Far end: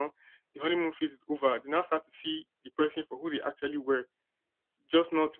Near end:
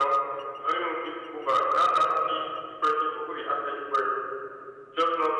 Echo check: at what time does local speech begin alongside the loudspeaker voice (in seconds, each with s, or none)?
none